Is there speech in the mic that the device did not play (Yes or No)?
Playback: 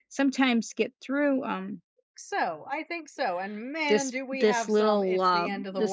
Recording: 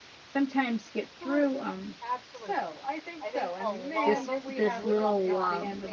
Yes